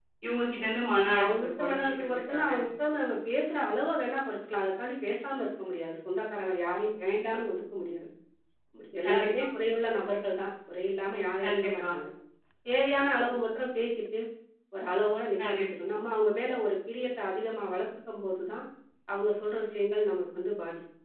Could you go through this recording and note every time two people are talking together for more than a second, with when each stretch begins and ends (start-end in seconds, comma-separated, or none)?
1.2-2.5